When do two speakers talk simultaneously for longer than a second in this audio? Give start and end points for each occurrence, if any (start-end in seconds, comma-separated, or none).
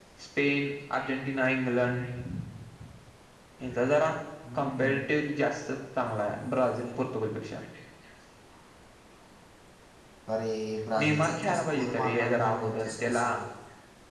11.0-13.3